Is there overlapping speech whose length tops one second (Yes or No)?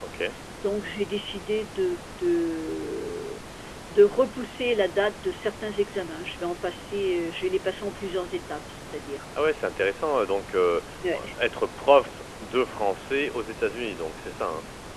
No